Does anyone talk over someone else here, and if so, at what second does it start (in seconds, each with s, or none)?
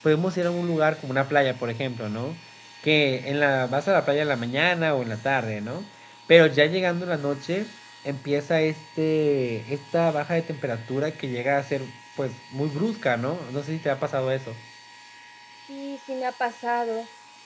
none